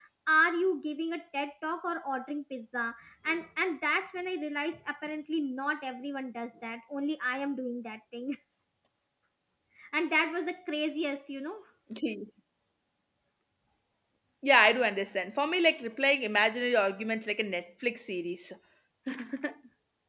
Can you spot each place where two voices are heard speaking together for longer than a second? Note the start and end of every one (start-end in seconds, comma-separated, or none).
none